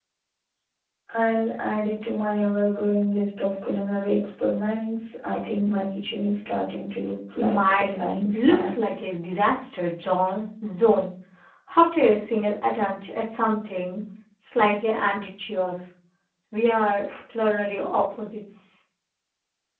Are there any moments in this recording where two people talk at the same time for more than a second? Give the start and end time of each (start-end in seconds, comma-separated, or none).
7.4-8.7